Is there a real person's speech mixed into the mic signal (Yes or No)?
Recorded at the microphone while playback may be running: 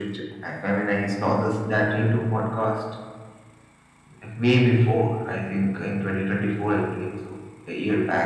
No